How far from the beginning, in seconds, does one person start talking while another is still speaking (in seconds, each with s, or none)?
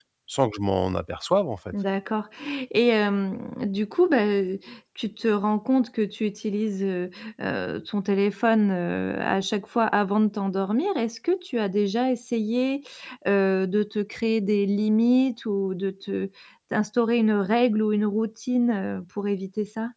none